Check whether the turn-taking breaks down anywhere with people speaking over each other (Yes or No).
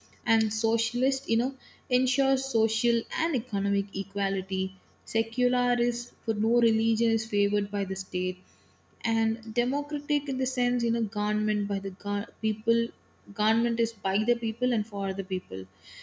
No